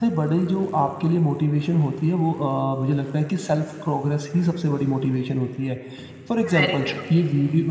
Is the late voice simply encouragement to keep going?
Yes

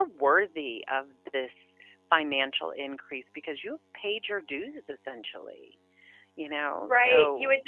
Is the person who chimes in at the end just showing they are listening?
No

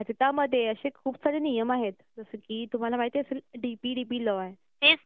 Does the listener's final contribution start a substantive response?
Yes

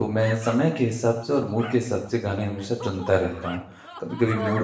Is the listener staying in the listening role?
Yes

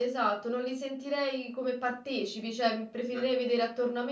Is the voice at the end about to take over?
No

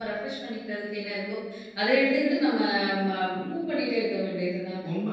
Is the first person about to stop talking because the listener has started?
Yes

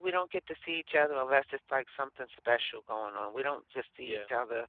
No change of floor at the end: Yes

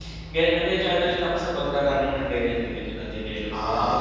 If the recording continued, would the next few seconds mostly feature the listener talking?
Yes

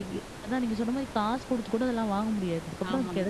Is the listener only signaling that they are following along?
Yes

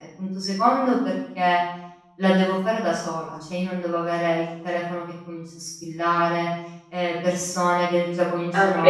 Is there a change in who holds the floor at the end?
No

